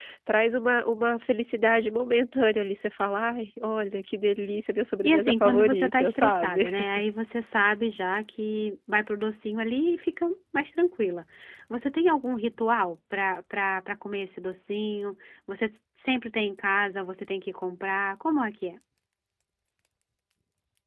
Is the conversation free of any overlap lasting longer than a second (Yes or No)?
No